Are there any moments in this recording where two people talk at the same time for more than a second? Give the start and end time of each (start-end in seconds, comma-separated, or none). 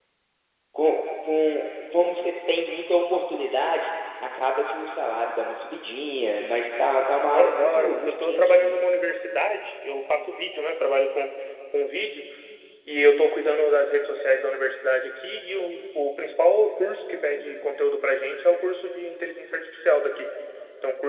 7.3-8.8